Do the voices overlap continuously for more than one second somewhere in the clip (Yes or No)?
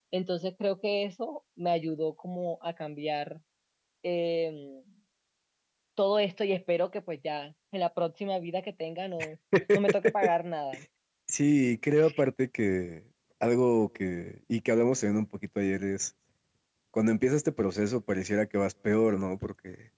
No